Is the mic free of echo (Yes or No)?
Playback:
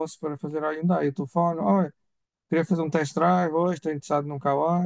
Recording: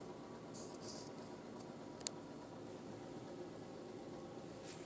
Yes